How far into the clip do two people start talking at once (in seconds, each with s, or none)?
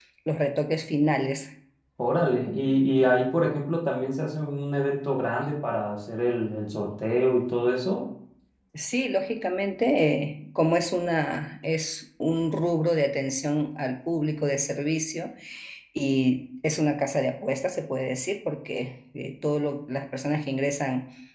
none